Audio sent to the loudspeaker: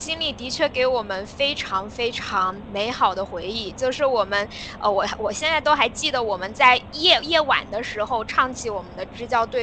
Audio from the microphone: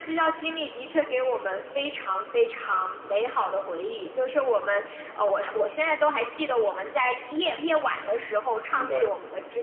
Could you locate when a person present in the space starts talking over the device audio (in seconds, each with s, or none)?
8.7 s